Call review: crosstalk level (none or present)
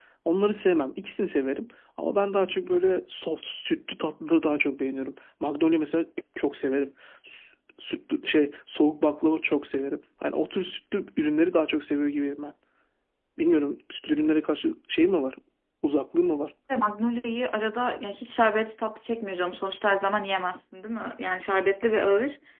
none